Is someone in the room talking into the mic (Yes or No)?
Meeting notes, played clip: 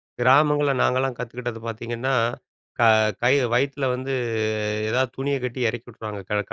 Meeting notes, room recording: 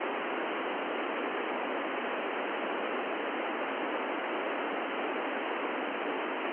No